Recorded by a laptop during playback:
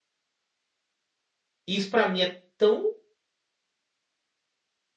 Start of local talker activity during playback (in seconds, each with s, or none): 1.7 s